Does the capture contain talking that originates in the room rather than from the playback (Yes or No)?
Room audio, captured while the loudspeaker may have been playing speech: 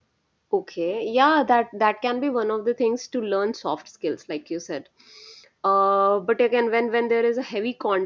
Yes